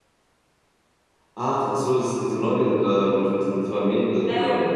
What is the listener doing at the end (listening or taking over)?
taking over